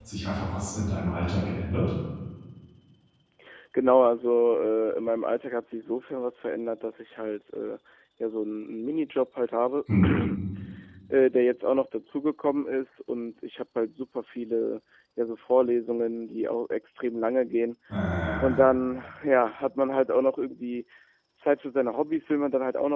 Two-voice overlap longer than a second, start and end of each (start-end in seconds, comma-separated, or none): none